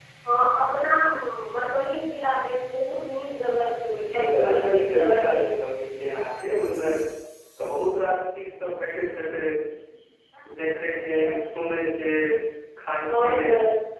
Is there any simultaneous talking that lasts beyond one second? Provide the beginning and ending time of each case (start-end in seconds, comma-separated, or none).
3.9-5.5